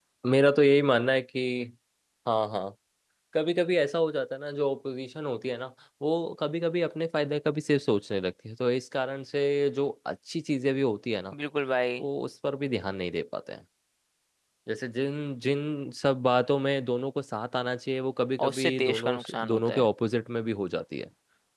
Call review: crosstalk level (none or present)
present